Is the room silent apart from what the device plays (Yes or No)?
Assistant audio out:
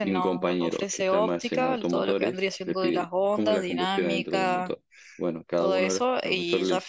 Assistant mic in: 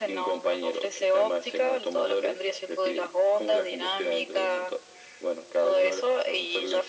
Yes